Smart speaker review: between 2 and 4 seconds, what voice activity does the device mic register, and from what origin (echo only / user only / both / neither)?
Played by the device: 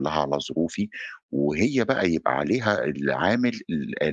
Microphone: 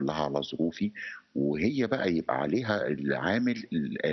echo only